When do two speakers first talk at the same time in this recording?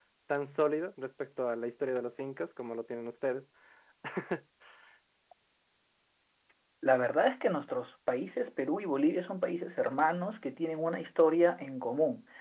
none

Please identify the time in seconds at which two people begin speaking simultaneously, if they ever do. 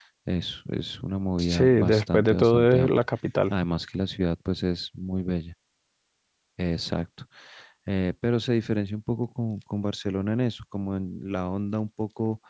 1.4 s

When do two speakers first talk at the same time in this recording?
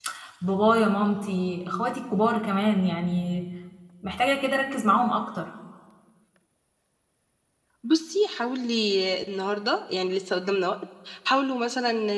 none

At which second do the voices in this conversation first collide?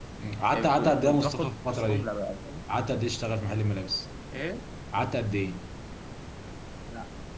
0.5 s

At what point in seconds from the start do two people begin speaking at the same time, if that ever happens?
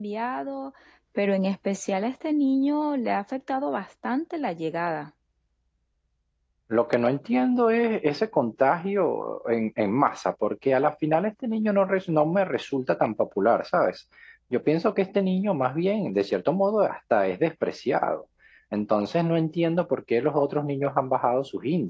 none

